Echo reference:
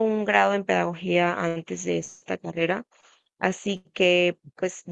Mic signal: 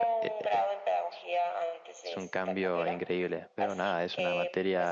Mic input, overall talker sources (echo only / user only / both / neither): both